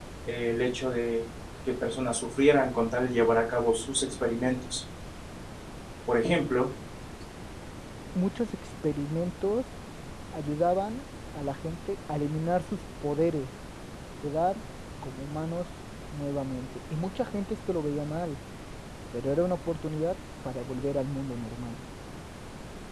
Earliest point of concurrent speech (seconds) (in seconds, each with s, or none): none